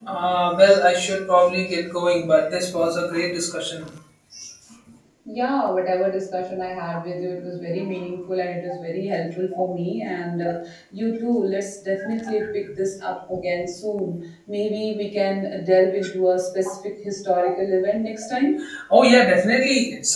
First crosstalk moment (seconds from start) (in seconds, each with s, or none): none